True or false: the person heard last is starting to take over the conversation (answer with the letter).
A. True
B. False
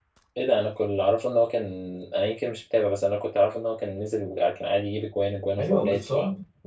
A